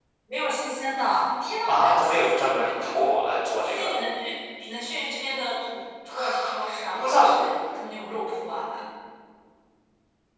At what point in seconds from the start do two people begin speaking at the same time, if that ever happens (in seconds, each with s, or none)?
1.7 s